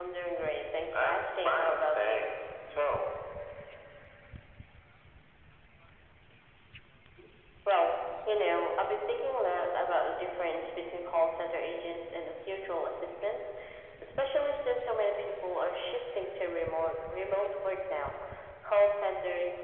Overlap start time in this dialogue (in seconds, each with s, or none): 0.9 s